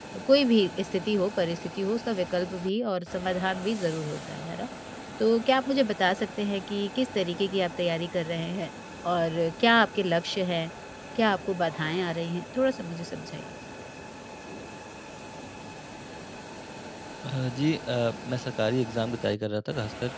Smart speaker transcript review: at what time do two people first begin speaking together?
none

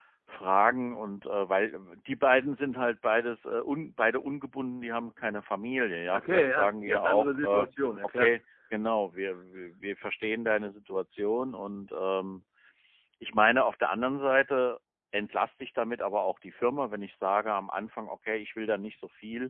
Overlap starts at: 6 s

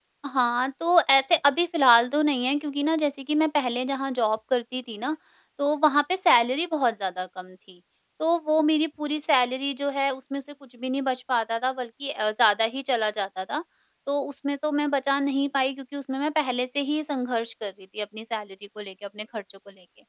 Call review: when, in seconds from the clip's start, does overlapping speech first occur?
none

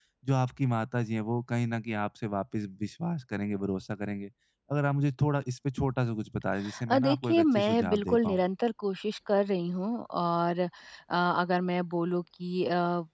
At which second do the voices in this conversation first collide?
7 s

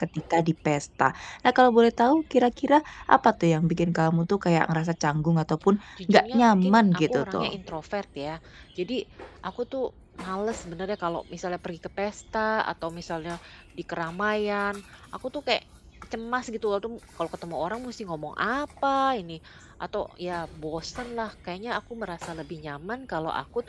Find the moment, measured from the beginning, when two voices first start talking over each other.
6 s

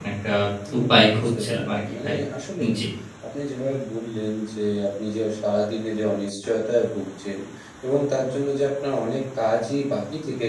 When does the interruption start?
1 s

